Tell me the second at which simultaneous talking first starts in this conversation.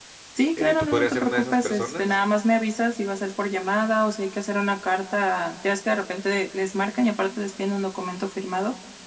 0.6 s

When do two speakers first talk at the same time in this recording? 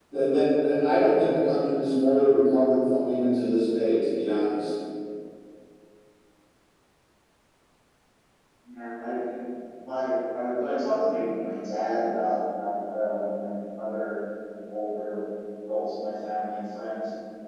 none

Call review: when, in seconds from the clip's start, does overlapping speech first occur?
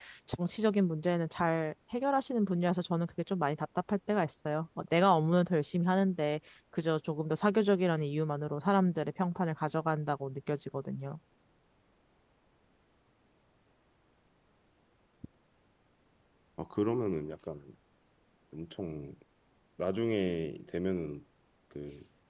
none

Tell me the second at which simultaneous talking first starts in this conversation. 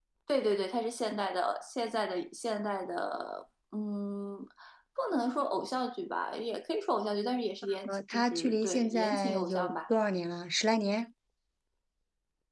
7.9 s

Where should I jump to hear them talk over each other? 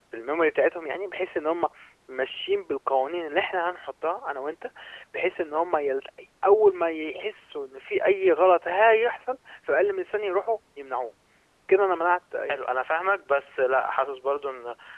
none

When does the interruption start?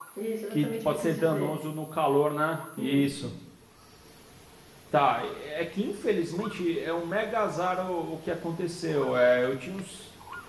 0.5 s

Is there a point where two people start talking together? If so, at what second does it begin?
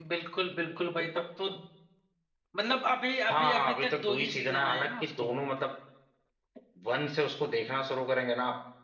3.2 s

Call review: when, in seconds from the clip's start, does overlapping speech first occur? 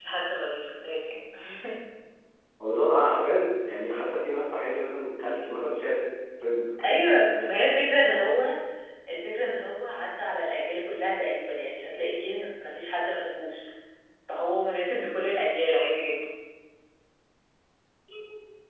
6.8 s

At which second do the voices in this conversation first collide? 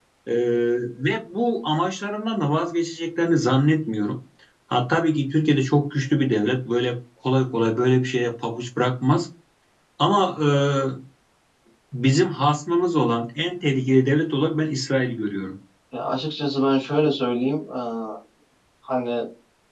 none

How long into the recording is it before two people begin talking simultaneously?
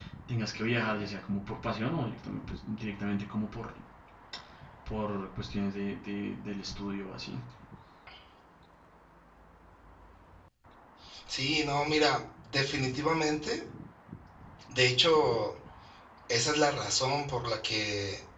none

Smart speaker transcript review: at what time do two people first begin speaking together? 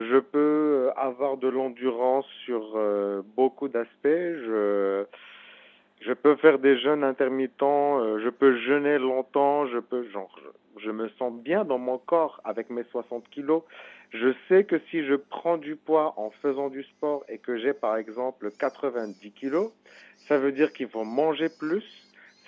none

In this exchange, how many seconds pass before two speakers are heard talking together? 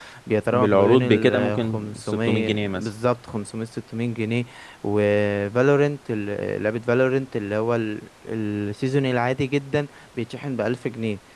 0.5 s

